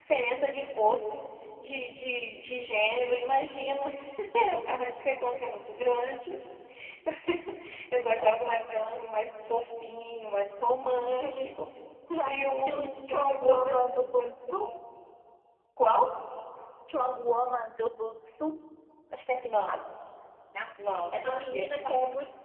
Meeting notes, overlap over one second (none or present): present